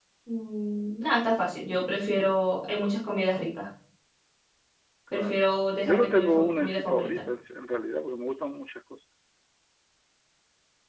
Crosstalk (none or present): present